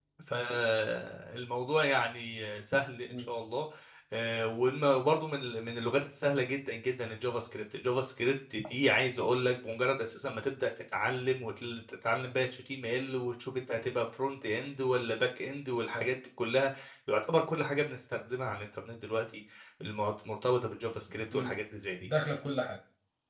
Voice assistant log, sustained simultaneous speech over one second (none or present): none